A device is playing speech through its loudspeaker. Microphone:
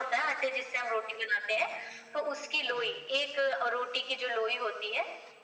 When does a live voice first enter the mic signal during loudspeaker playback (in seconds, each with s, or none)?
none